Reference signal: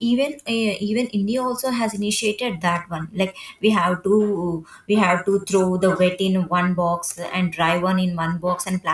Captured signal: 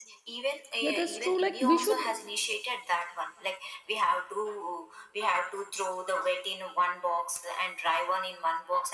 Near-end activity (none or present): present